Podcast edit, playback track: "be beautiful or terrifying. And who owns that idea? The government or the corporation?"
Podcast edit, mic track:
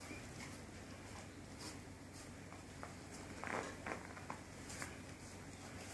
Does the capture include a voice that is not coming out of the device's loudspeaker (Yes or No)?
No